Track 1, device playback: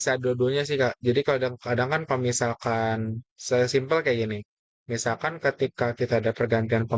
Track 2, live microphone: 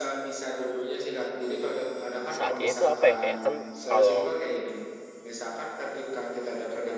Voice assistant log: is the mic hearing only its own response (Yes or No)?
No